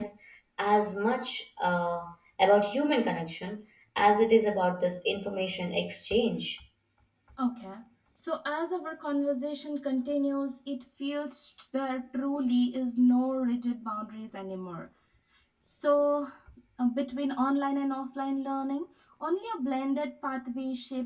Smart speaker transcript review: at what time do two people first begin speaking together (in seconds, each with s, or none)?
none